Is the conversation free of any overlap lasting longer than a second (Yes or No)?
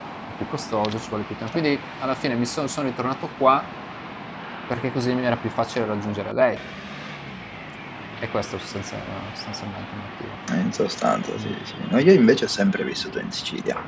Yes